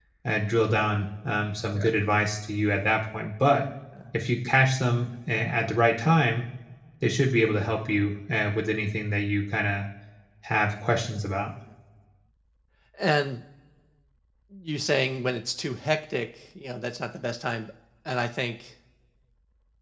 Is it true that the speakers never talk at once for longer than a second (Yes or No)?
Yes